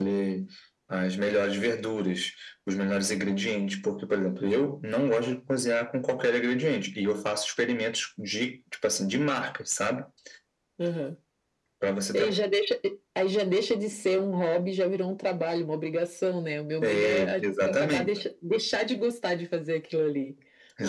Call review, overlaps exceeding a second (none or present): present